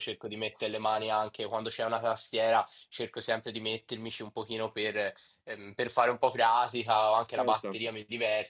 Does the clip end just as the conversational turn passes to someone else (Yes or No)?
No